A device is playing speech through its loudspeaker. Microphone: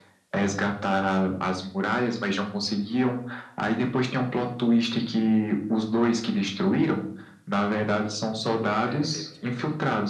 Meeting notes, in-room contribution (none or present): present